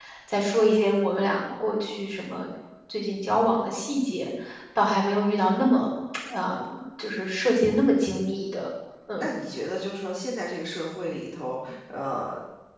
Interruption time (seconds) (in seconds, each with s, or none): none